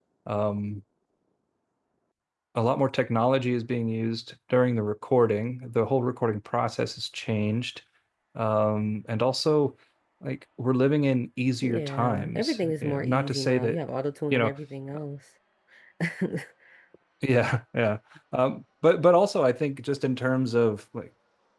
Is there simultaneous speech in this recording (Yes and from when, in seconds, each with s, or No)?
Yes, from 11.6 s